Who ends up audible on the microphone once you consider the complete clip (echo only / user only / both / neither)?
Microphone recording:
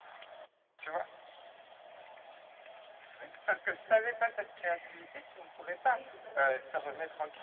both